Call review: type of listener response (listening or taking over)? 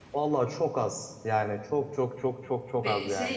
taking over